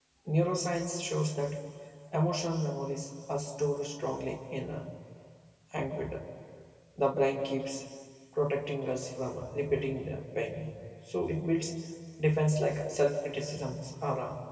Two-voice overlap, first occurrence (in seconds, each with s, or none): none